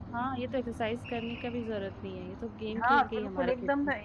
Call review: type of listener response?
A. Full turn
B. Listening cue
A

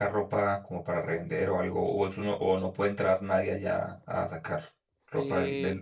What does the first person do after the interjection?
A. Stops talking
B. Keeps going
A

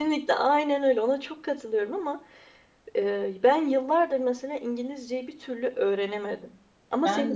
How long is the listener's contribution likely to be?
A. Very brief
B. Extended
A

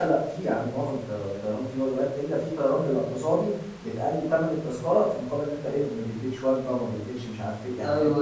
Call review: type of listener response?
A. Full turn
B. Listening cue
A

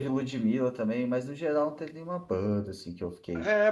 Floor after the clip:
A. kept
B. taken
B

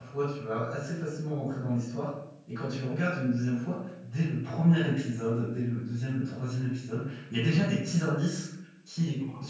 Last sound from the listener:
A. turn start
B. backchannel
B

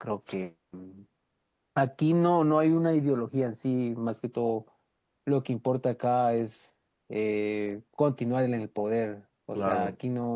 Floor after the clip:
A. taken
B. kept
B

